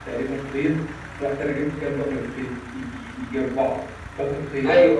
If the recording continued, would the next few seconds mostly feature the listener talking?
No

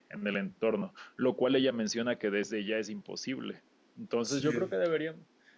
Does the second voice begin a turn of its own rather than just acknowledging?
No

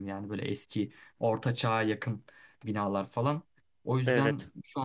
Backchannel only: Yes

